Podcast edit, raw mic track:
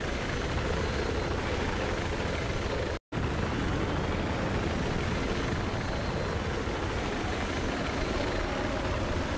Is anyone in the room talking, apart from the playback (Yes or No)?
No